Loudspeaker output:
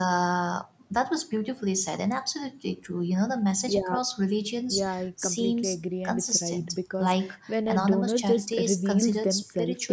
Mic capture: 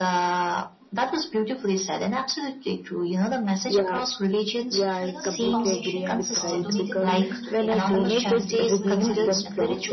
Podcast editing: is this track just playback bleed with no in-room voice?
No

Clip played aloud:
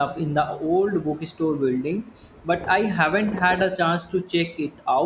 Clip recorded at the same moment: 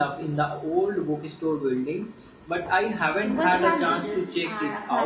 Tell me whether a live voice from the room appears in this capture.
Yes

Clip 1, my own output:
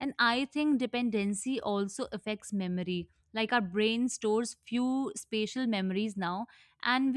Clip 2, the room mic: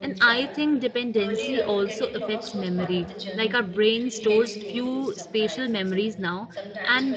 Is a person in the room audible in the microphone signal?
Yes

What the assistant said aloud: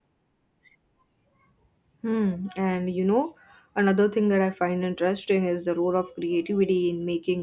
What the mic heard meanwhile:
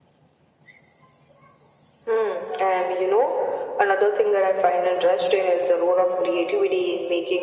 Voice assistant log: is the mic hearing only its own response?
Yes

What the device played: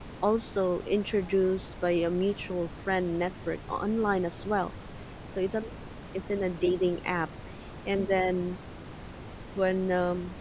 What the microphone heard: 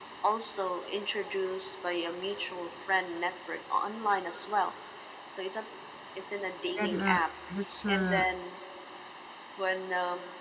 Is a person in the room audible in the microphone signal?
Yes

